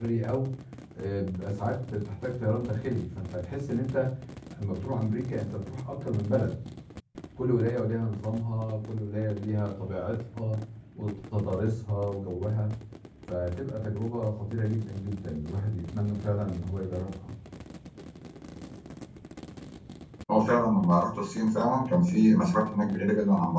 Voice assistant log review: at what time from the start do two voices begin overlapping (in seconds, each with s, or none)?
none